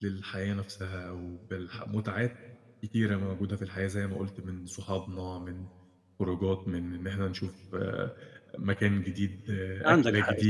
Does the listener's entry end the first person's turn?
Yes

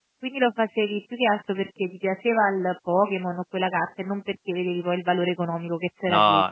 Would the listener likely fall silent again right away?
No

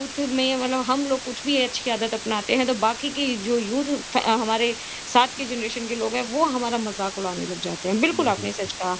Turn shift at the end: No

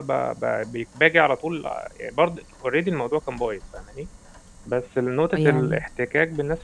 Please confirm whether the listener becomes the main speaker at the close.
No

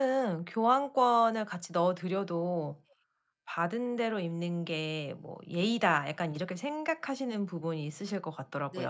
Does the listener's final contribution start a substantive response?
Yes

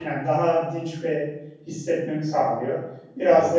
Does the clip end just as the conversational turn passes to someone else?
No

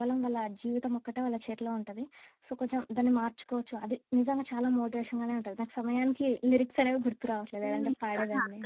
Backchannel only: No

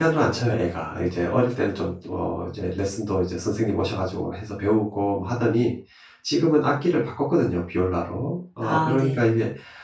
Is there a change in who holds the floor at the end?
No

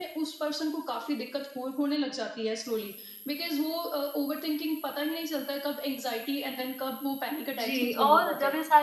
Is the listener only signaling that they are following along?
No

